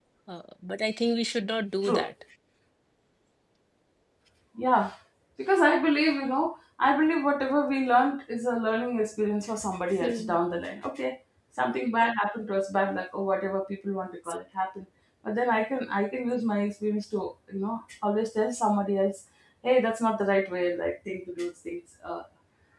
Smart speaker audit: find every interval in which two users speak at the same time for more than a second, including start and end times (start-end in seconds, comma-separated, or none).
none